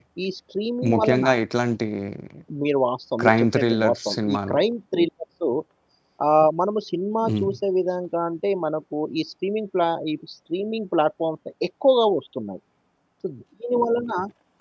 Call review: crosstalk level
present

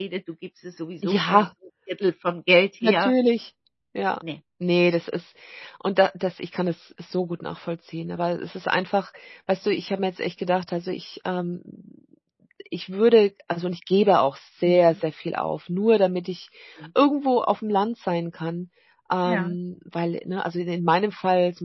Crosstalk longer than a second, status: none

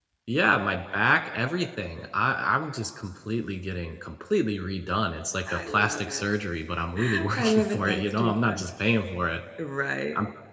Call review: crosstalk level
present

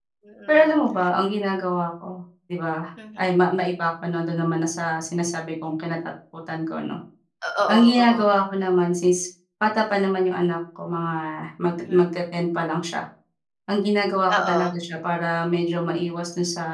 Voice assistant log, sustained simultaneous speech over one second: none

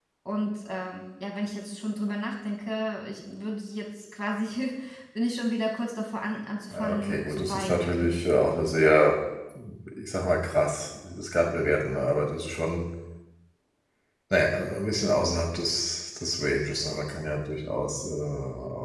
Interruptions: present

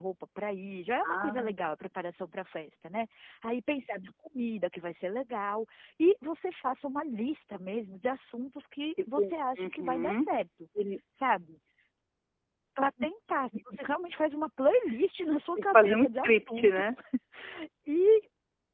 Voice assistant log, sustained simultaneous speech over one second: present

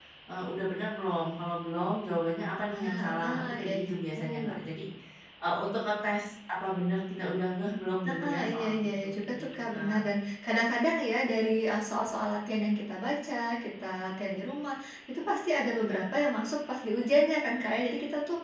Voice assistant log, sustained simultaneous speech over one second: present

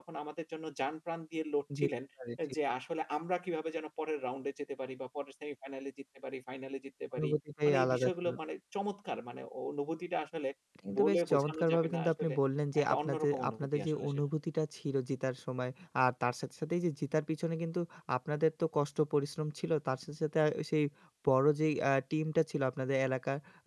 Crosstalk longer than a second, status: present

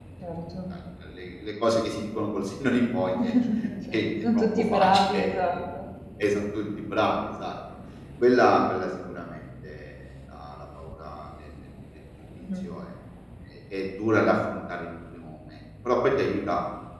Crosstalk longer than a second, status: present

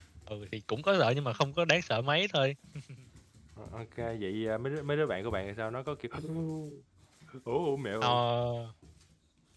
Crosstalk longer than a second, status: none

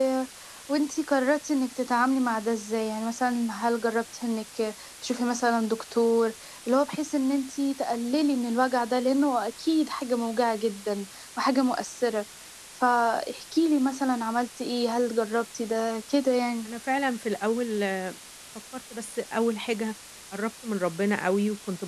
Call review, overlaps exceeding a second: none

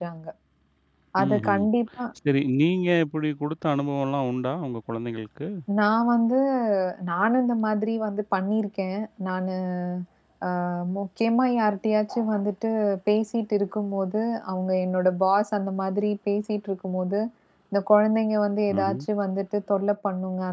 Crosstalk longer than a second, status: none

